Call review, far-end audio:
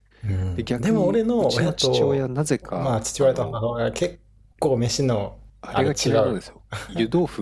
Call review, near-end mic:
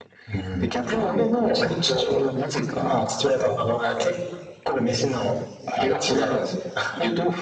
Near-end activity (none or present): none